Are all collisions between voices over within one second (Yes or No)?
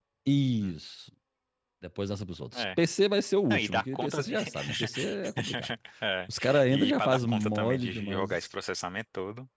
No